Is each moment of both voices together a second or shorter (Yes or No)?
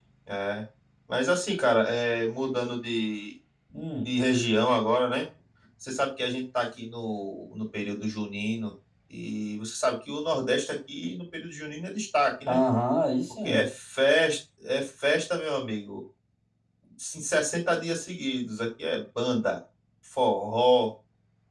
Yes